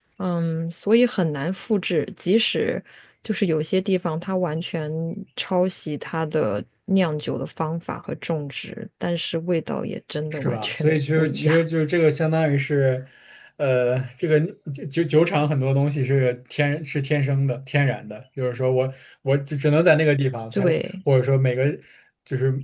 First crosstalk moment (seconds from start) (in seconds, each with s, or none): 10.3 s